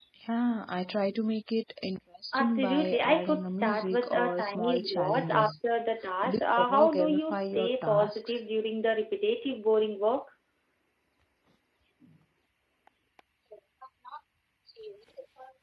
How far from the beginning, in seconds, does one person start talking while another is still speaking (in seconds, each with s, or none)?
2.3 s